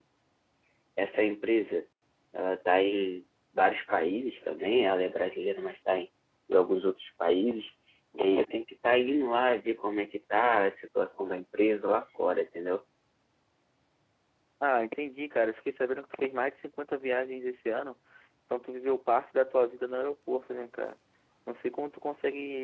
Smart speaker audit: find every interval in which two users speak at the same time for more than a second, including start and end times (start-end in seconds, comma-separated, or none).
none